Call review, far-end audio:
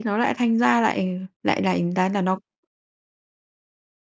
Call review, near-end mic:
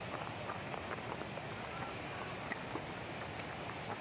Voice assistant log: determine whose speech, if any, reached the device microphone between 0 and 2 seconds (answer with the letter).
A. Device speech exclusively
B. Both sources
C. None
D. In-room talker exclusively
C